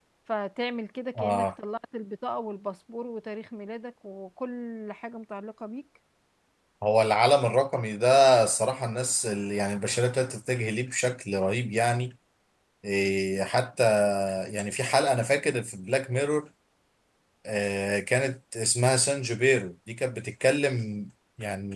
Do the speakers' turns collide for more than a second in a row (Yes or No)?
No